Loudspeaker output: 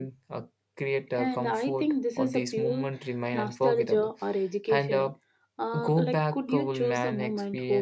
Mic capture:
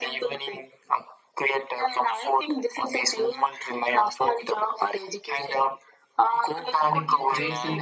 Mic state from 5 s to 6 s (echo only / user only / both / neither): echo only